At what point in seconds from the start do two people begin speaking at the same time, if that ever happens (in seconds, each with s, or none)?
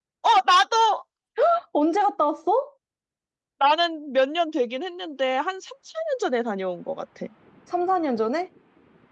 none